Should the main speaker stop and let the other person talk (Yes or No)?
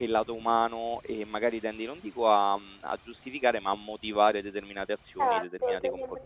Yes